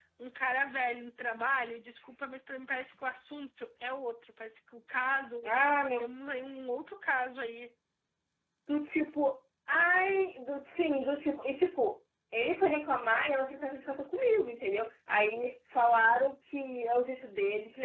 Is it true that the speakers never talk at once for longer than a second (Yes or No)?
Yes